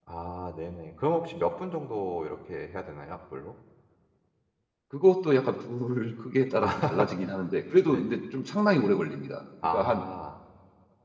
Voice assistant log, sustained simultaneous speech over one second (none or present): none